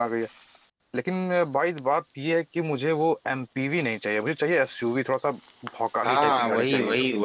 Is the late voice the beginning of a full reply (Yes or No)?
Yes